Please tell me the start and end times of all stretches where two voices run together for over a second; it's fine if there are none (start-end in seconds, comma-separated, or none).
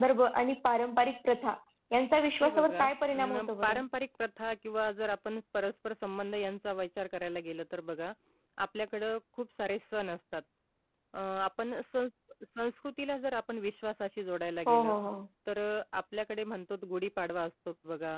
2.4-3.8